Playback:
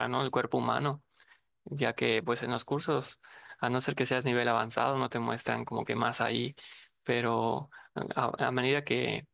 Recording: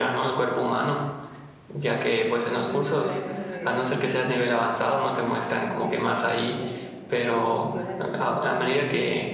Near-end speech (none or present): present